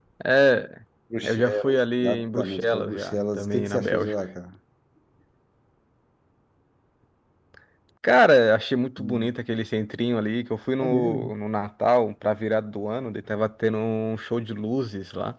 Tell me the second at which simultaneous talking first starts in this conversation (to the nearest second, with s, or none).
1 s